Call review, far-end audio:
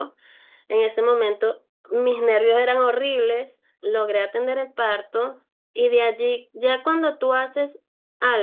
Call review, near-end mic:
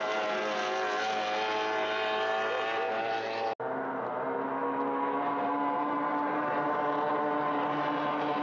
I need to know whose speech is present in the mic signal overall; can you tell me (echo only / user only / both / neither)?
neither